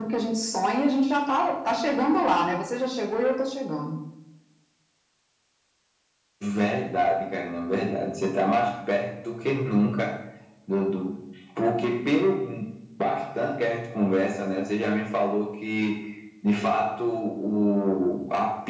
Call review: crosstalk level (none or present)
none